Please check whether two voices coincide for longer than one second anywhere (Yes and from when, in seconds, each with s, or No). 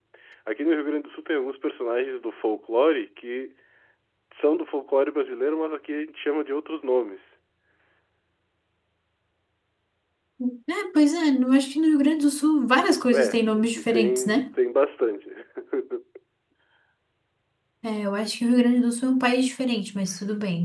Yes, from 13.1 s